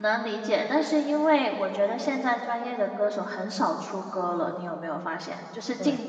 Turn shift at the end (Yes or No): No